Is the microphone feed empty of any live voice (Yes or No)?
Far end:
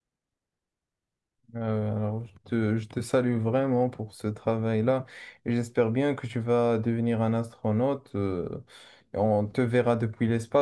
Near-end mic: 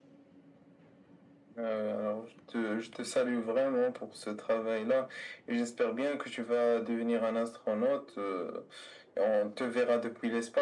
Yes